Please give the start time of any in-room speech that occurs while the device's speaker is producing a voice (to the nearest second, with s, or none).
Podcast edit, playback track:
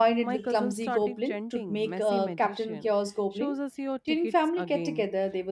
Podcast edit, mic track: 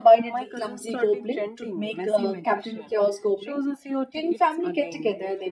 none